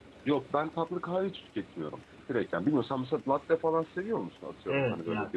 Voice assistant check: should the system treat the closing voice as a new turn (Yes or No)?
Yes